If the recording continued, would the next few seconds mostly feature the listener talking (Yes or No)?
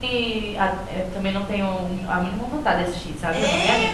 Yes